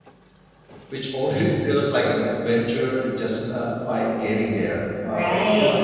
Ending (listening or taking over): taking over